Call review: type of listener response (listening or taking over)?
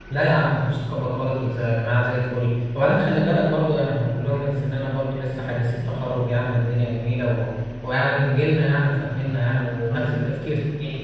listening